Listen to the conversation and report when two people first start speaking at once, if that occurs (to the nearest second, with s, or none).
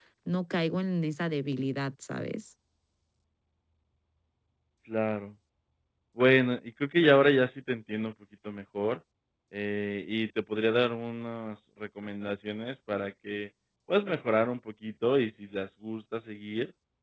none